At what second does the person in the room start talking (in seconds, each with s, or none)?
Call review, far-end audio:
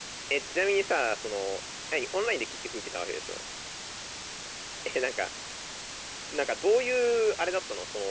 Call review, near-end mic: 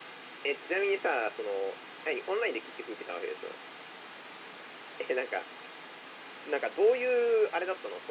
none